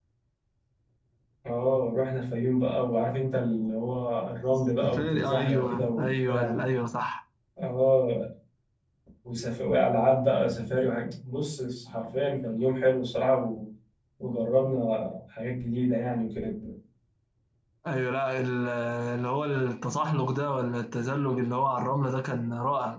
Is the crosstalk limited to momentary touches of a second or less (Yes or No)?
No